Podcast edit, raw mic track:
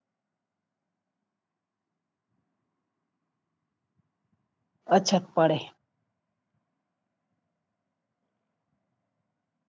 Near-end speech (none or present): present